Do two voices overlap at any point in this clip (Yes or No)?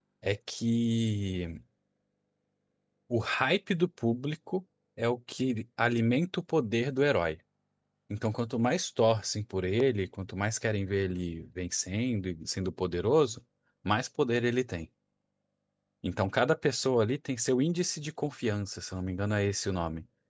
No